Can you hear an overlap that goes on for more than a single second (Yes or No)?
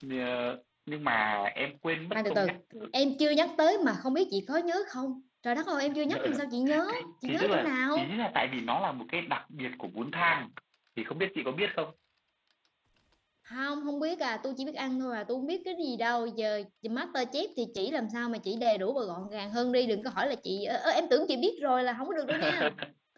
Yes